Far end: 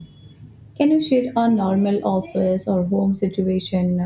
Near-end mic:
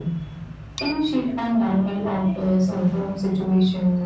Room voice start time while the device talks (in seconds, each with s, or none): none